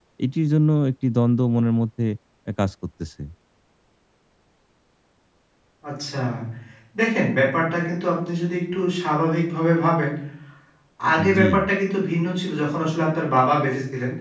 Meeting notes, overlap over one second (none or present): none